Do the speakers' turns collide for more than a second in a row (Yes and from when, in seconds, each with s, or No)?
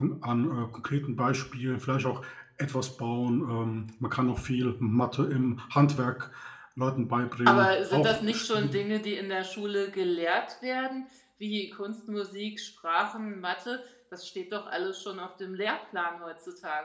Yes, from 7.5 s